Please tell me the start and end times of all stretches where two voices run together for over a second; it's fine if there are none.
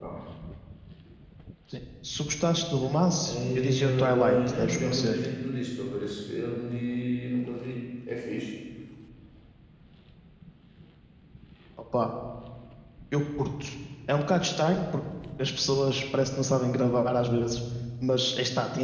3.2-5.2

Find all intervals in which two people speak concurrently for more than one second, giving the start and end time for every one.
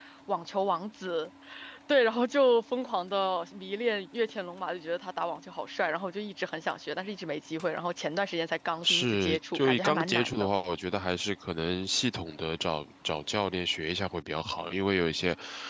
8.8-10.5

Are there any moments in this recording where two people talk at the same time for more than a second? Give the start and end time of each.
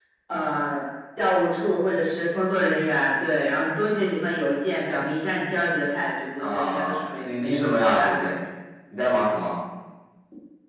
6.4-8.3

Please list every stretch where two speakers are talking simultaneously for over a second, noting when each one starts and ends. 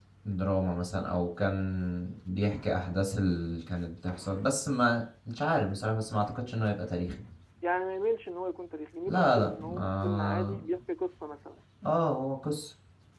9.1-10.5

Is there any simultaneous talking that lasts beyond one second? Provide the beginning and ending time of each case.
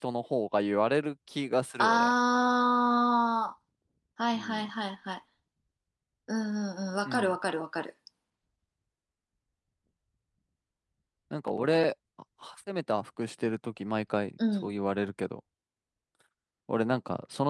none

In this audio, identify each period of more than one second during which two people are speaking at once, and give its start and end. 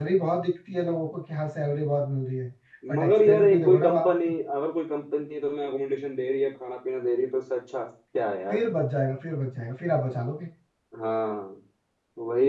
3.0-4.3

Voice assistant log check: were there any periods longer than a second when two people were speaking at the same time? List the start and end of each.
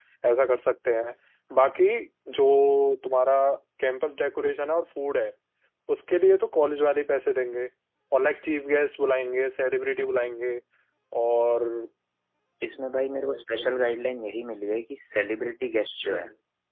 none

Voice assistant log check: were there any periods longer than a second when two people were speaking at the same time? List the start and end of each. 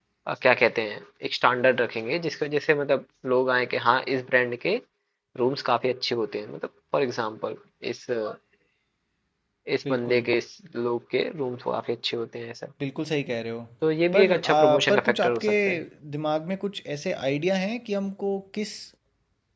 14.1-15.5

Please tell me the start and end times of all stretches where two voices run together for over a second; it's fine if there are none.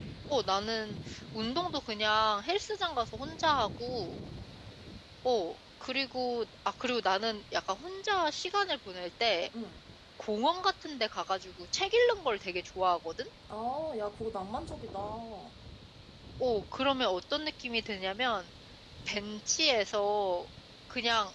none

